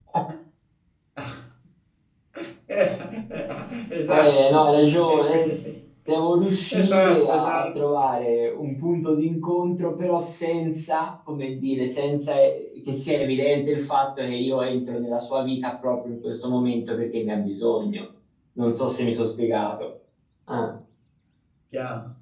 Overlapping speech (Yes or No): Yes